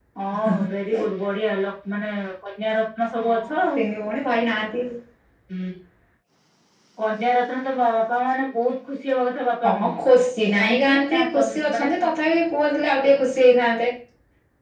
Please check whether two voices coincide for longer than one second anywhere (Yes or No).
Yes